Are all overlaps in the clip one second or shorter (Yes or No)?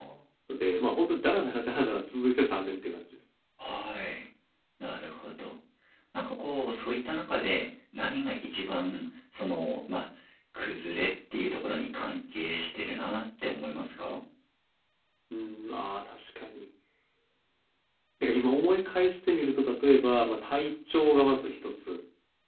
Yes